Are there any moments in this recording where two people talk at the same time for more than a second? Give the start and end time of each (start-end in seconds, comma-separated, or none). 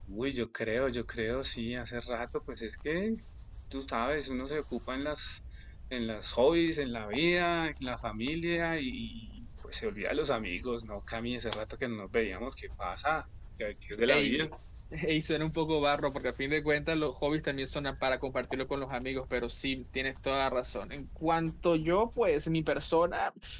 none